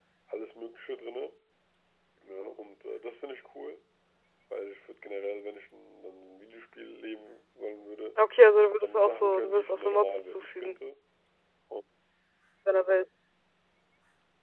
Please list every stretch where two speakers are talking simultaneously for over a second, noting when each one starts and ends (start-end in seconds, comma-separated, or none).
8.8-10.8